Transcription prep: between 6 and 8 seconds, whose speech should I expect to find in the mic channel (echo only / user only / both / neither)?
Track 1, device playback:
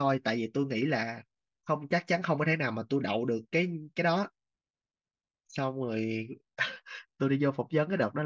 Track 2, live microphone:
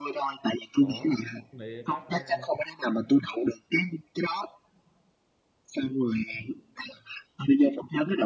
echo only